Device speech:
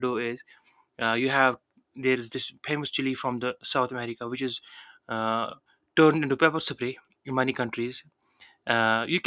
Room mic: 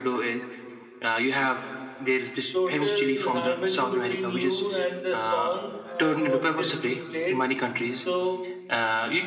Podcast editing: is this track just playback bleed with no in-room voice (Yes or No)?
No